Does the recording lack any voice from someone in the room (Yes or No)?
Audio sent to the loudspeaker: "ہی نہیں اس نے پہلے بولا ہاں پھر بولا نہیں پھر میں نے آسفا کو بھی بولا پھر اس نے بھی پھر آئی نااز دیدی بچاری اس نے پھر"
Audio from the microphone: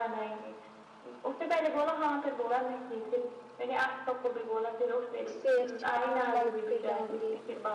No